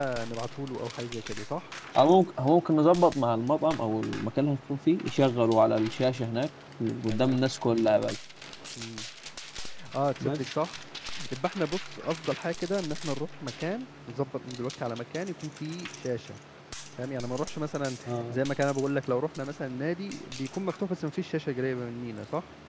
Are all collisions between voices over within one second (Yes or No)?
Yes